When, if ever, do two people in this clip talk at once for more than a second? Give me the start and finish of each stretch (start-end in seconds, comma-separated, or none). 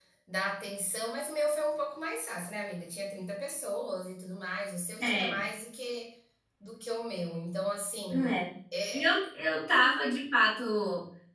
none